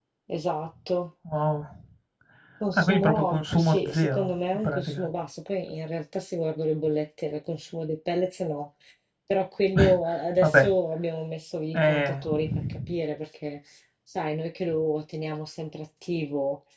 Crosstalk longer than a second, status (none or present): present